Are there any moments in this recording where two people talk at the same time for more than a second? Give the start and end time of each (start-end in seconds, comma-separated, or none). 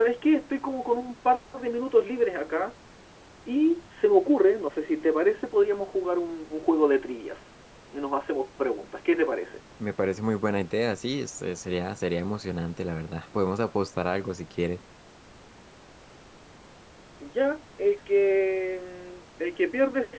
none